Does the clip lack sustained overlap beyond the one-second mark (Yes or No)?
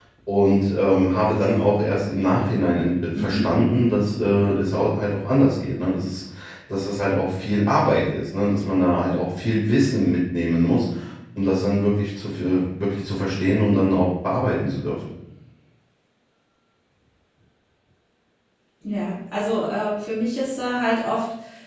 Yes